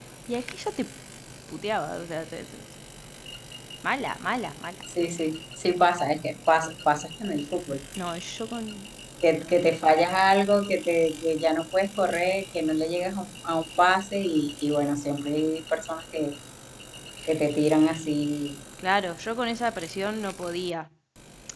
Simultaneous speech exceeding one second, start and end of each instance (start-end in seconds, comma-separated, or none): none